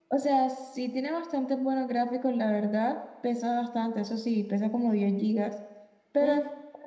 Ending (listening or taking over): listening